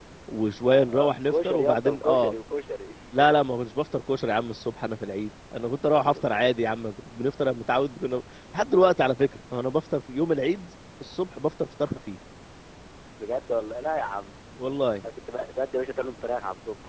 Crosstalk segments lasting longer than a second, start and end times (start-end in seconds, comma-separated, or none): 0.8-2.3